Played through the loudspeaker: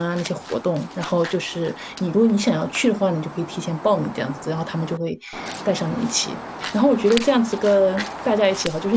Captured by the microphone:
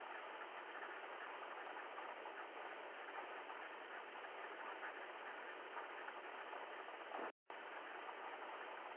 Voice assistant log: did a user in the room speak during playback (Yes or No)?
No